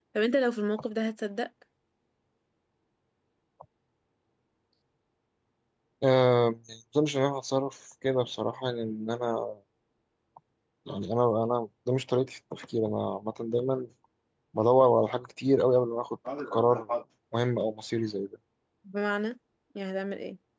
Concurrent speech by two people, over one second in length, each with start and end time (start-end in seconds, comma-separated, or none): none